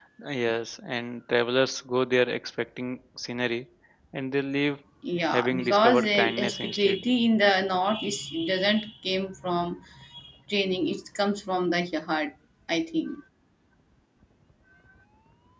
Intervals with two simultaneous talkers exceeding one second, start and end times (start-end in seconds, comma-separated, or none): 5.3-7.0